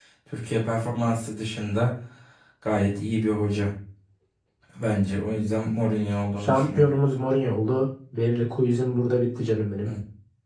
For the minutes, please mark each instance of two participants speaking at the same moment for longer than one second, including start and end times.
none

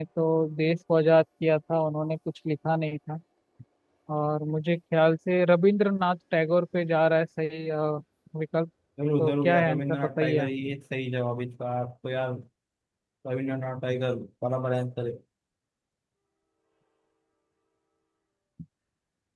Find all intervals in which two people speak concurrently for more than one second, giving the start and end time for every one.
9.2-10.5

